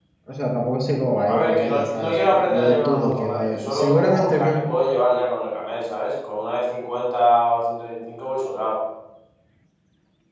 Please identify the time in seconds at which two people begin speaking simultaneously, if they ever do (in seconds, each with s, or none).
1.3 s